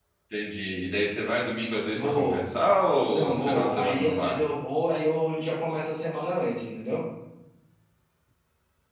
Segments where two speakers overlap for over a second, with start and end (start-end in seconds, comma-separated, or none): 3.1-4.3